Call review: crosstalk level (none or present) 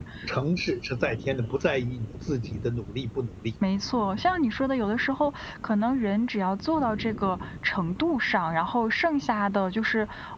none